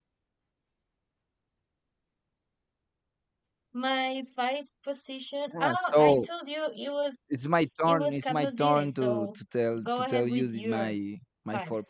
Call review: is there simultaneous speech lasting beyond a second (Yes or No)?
Yes